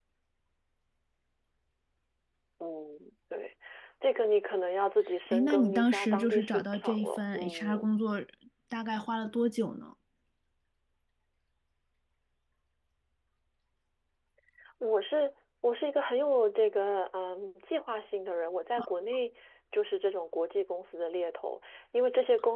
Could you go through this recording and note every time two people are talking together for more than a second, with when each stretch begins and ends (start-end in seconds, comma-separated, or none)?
5.3-7.8